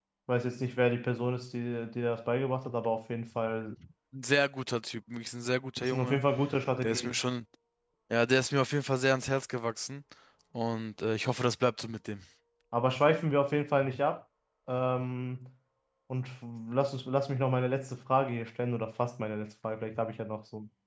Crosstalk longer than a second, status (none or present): none